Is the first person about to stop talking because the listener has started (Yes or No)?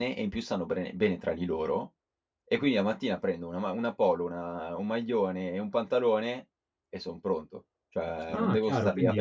Yes